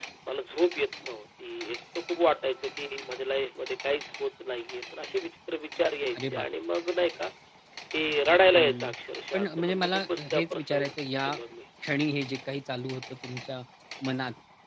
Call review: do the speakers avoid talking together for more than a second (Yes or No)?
No